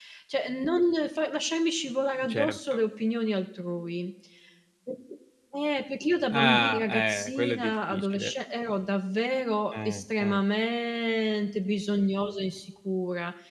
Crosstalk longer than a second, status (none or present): present